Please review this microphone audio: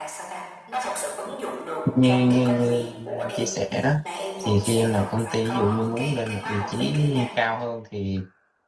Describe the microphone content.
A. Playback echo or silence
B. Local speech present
B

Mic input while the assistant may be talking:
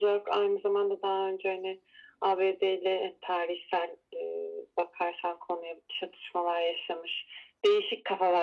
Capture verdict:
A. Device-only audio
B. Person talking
A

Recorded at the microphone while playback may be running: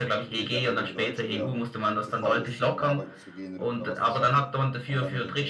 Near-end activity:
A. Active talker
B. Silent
A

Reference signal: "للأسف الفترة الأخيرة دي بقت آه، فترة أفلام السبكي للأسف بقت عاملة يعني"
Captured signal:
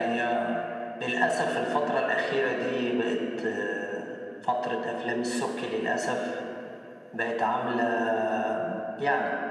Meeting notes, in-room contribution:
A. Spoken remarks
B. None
B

